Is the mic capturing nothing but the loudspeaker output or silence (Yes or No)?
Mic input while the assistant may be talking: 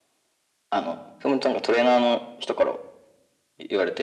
Yes